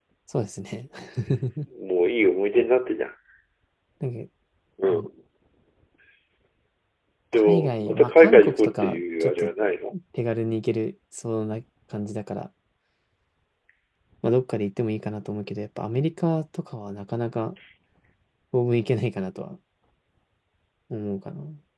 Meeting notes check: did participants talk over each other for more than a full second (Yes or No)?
Yes